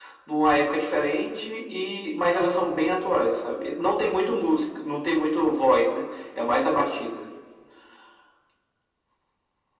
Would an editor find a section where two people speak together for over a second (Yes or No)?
No